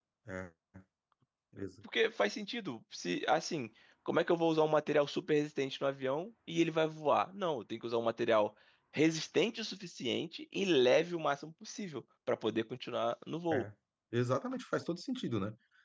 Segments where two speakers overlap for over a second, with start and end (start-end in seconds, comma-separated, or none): none